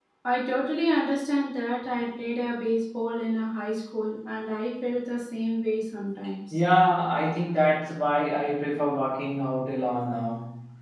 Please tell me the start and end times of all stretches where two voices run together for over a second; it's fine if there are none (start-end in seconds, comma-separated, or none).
none